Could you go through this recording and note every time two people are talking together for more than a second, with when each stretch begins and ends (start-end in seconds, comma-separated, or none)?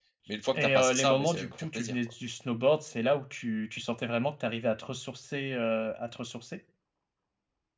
0.5-2.0